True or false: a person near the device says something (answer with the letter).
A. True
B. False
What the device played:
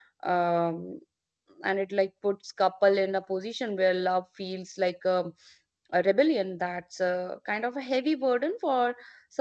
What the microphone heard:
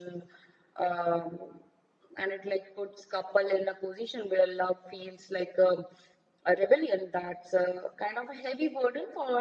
B